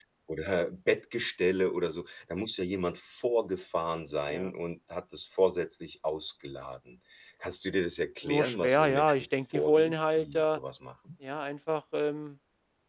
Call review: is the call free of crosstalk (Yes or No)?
No